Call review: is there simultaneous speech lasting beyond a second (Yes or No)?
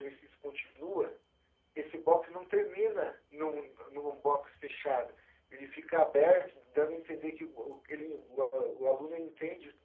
No